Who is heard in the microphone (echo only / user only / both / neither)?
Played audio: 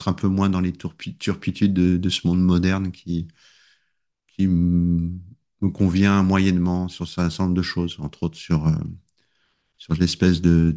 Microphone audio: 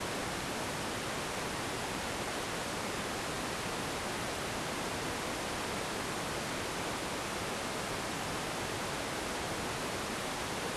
neither